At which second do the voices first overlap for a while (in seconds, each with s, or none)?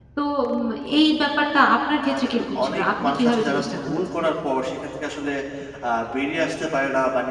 2.0 s